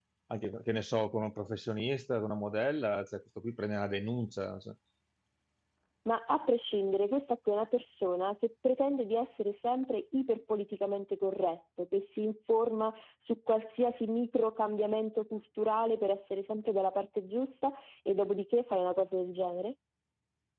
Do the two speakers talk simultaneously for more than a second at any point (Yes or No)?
No